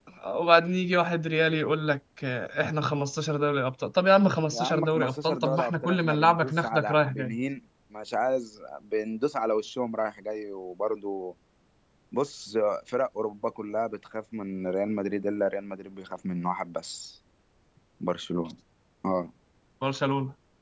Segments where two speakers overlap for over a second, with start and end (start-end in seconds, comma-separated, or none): 4.5-7.3